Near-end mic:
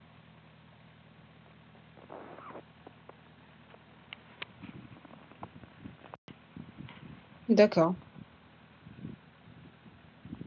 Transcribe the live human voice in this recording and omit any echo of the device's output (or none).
d'accord.